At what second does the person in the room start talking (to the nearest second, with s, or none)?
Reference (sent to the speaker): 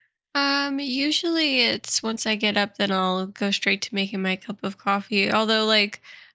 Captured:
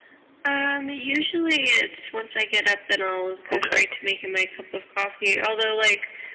4 s